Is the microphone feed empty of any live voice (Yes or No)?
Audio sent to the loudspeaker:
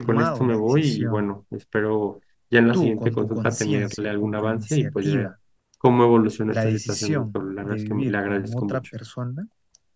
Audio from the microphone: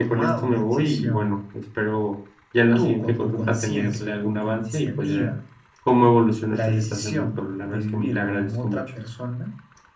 Yes